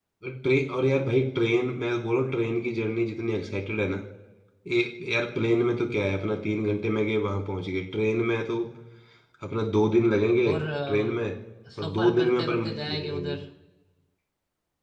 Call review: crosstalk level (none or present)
present